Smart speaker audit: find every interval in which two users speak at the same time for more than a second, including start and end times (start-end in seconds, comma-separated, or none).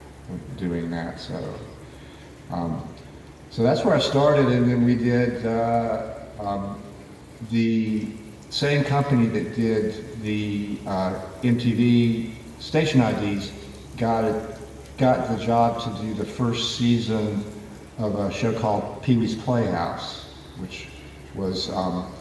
none